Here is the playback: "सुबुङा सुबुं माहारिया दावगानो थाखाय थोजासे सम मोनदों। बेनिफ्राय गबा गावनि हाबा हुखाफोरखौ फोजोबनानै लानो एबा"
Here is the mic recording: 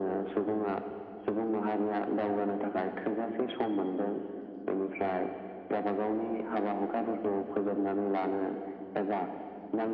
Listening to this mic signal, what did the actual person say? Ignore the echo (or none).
none